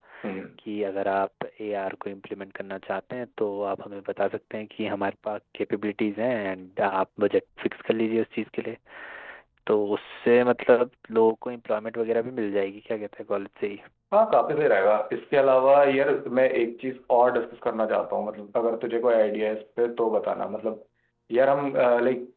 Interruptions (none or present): none